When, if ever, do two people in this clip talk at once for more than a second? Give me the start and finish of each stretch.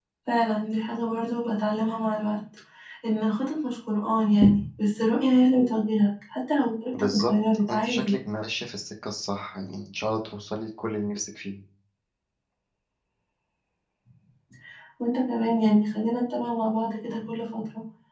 6.9-8.1

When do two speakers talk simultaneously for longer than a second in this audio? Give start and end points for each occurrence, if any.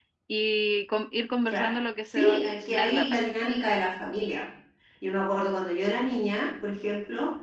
1.5-3.2

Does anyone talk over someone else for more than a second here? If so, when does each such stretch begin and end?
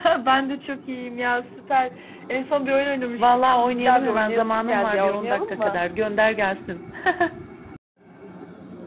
3.2-5.8

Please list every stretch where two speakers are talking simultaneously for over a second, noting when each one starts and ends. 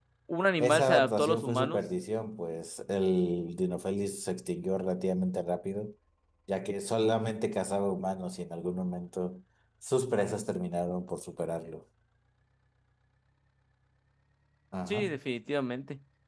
0.6-1.8

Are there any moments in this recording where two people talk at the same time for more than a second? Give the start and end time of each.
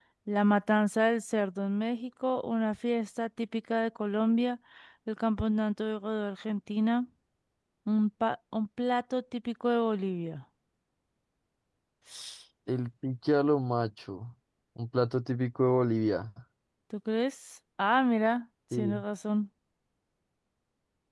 none

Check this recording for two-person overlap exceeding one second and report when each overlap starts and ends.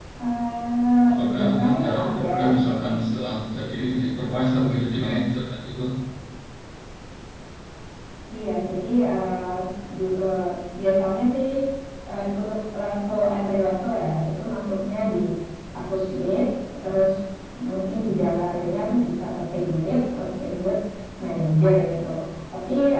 1.1-2.3

